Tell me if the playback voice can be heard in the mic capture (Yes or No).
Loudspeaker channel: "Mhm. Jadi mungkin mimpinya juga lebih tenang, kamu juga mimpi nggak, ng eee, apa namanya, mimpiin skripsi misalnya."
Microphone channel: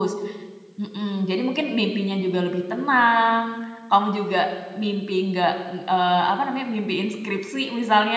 Yes